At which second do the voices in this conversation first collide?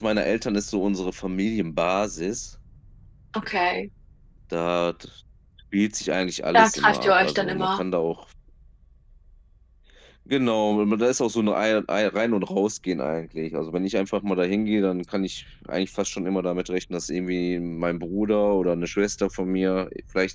6.5 s

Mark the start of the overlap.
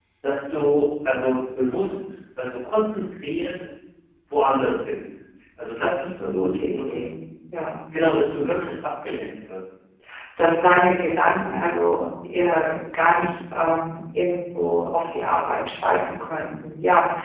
5.8 s

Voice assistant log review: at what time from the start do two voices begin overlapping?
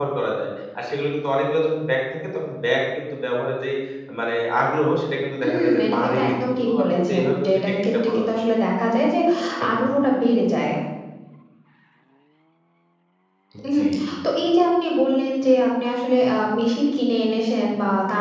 5.4 s

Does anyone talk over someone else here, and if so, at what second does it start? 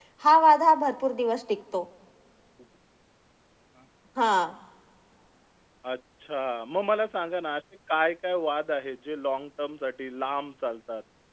none

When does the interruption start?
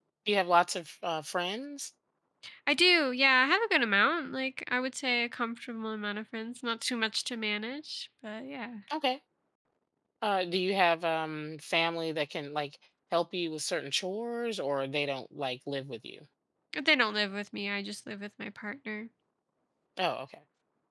none

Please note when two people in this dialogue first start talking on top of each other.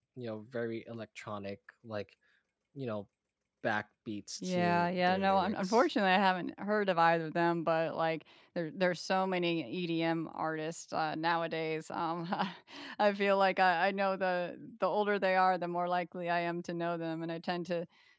4.4 s

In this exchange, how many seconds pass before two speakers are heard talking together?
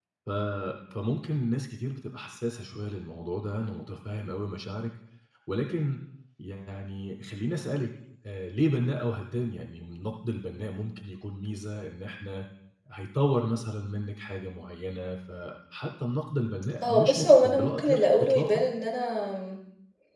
16.8 s

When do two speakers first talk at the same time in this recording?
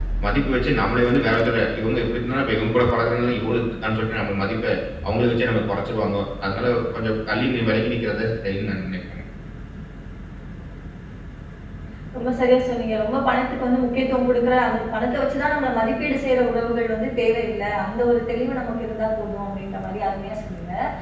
none

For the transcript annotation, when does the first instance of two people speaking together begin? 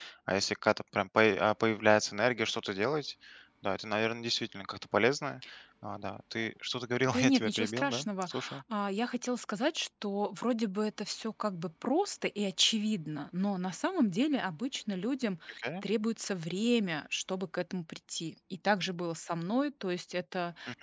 7.1 s

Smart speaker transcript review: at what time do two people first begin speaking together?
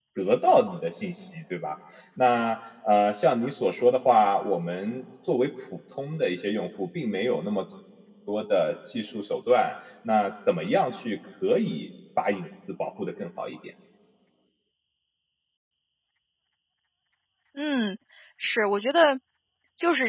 none

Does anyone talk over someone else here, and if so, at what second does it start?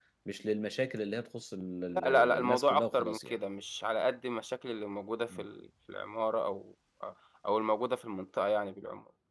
1.9 s

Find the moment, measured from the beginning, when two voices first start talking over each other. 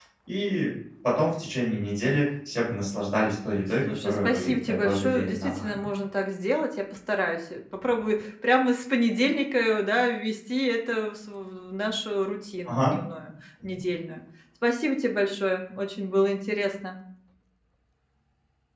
3.8 s

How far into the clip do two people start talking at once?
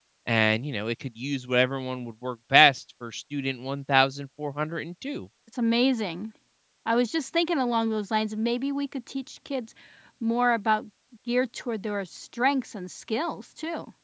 none

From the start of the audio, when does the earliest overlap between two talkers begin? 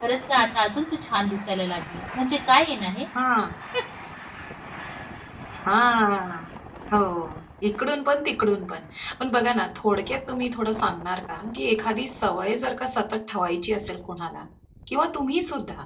none

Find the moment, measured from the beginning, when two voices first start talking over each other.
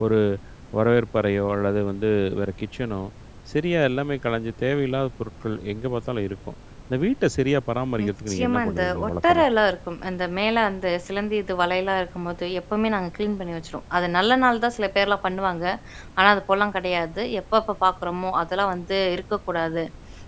8.0 s

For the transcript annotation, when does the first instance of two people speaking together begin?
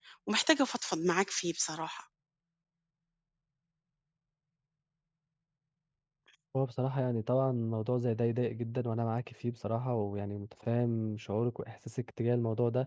none

